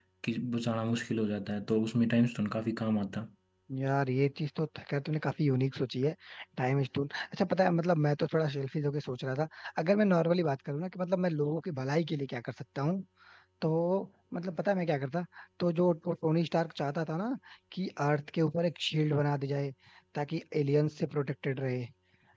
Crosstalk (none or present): none